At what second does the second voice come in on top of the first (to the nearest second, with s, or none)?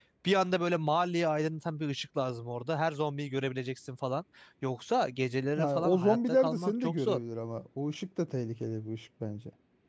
6 s